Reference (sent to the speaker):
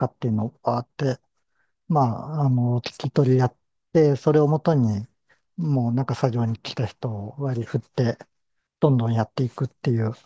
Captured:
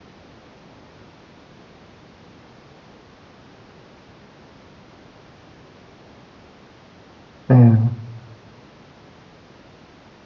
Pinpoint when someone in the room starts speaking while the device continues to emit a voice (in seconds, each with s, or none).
7.5 s